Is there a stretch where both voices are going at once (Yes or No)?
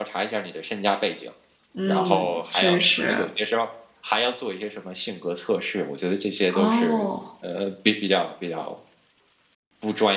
Yes